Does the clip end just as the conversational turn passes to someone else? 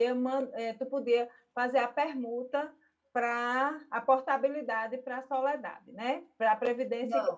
Yes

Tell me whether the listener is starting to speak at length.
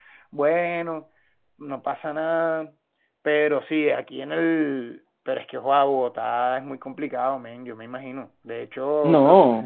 No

